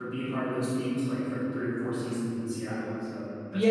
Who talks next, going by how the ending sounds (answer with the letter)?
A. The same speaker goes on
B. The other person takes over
B